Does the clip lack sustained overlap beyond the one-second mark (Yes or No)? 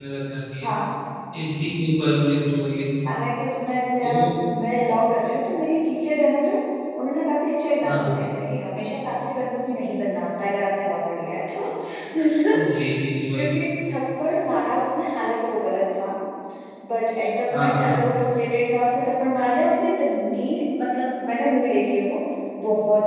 Yes